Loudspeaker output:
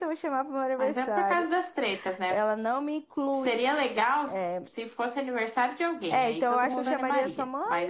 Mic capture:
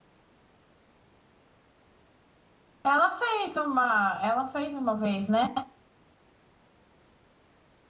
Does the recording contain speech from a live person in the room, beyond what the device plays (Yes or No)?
Yes